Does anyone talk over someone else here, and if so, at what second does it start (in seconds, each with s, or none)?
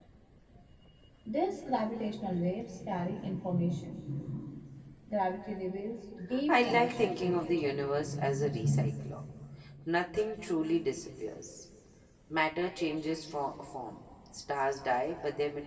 6.3 s